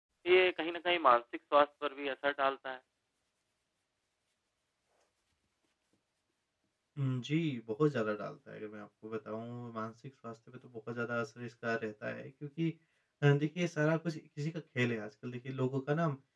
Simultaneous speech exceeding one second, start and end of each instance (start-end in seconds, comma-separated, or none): none